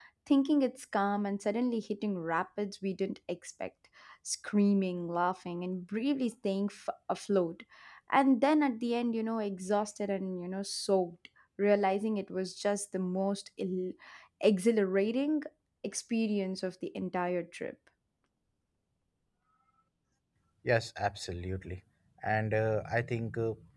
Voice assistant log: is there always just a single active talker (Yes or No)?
Yes